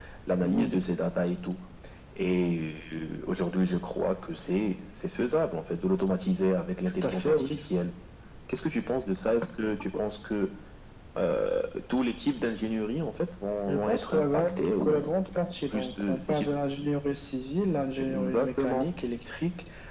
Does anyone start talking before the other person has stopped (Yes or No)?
Yes